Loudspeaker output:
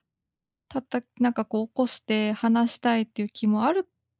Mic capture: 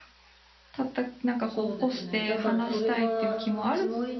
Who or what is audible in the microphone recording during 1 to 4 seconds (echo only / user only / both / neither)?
both